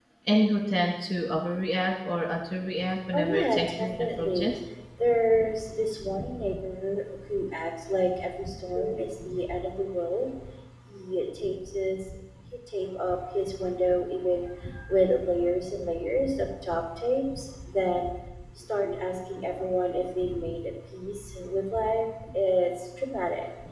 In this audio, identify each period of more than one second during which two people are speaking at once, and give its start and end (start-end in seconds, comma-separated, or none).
3.1-4.6